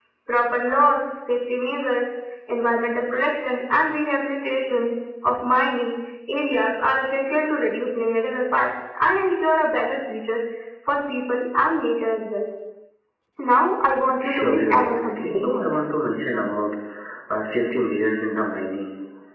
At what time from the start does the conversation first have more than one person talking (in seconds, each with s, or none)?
14.2 s